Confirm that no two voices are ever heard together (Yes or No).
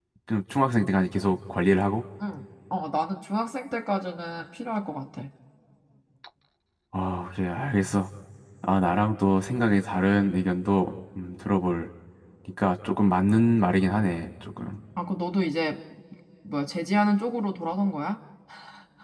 Yes